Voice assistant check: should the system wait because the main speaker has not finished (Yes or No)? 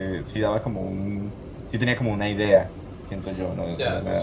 No